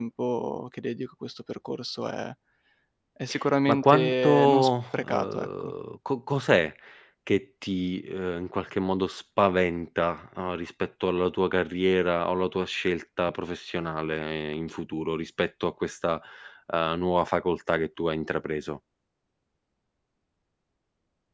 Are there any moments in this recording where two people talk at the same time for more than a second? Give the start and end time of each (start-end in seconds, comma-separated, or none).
3.7-5.7